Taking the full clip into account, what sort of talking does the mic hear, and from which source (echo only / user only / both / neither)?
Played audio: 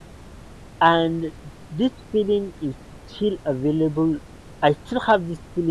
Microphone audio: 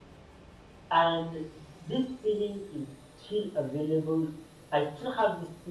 echo only